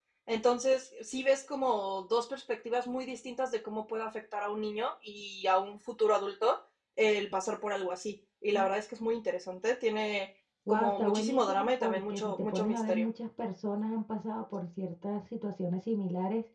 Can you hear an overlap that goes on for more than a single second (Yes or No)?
Yes